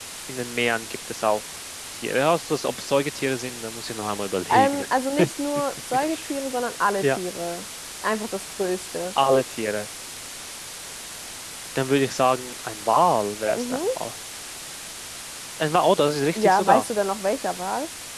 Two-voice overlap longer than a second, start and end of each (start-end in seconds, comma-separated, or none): none